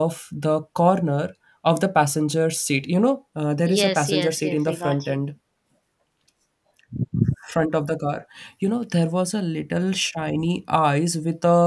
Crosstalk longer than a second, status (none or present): present